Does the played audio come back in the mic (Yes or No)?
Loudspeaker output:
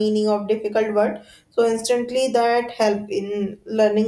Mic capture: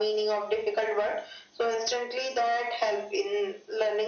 Yes